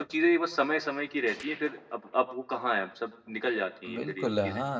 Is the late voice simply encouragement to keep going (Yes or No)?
No